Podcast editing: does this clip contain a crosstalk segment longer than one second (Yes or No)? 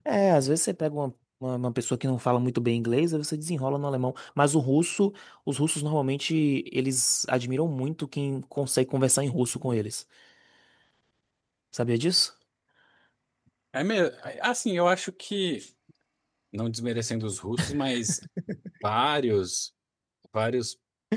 No